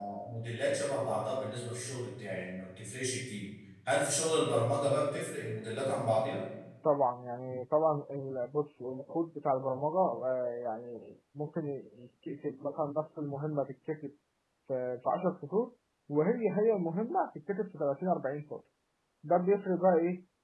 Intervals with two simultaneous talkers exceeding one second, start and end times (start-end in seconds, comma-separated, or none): none